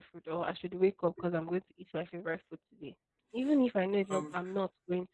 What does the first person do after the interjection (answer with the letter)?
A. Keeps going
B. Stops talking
A